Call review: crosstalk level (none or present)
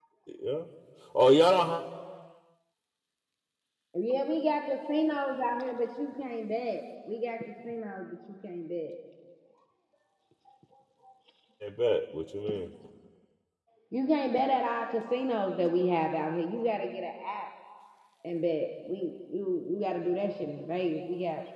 none